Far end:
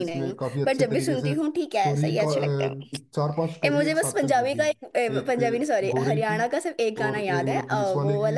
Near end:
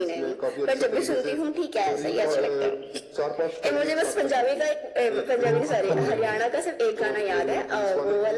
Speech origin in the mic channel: both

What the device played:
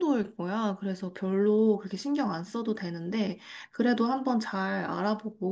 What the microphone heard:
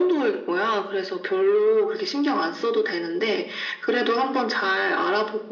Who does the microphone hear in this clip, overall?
echo only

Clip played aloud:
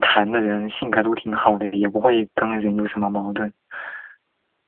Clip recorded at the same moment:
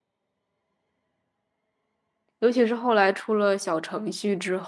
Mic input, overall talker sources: user only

